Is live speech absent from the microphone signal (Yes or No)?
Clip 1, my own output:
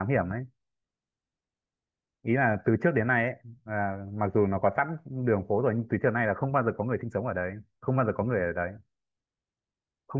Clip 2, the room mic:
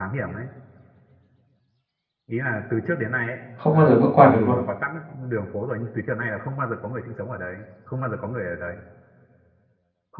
No